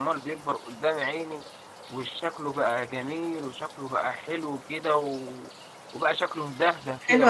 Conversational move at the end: taking over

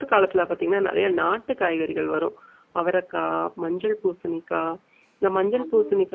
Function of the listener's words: listening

